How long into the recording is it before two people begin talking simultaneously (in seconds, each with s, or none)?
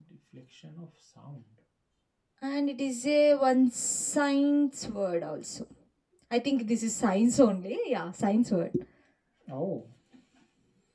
none